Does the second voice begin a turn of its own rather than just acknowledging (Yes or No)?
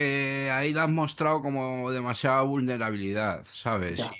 No